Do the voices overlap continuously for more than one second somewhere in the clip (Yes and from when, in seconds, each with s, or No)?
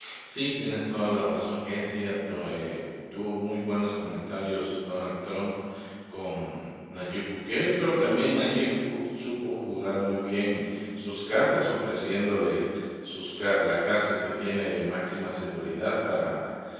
No